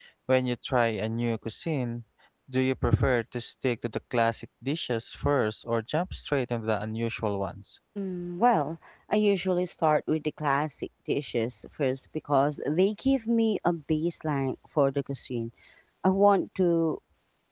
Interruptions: none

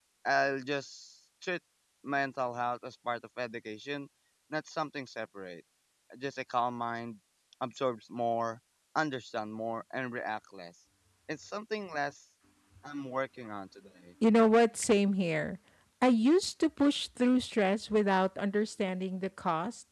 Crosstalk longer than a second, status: none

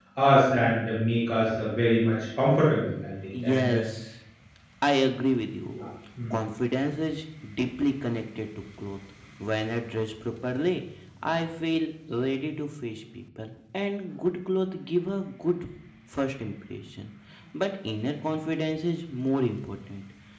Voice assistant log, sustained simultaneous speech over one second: none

